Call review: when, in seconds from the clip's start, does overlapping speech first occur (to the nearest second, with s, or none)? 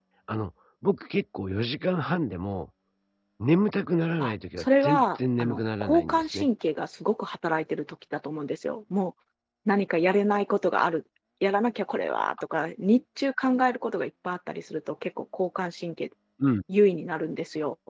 4 s